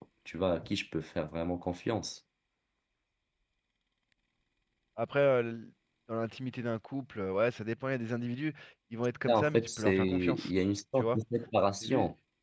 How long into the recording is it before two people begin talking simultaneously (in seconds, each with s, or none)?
9.3 s